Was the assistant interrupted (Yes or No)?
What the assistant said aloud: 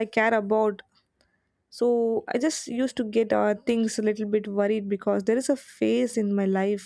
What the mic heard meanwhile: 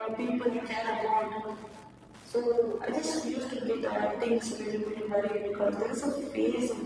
No